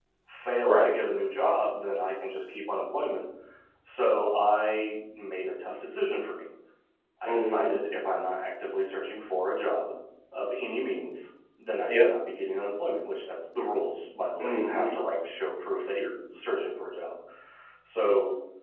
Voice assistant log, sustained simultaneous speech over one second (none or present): none